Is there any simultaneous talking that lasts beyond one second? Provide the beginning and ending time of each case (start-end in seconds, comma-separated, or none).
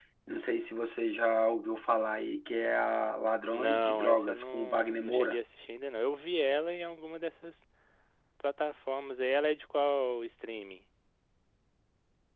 3.5-5.4